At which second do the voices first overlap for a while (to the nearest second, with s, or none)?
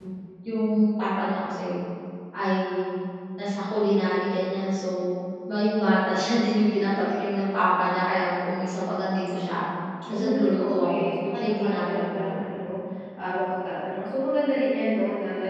10 s